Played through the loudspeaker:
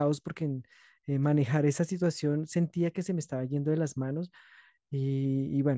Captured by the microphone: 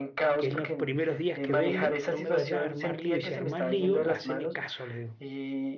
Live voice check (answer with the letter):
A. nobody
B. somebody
B